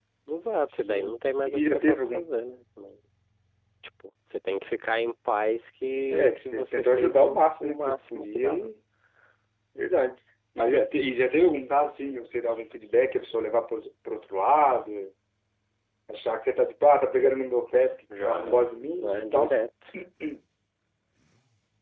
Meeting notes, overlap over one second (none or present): present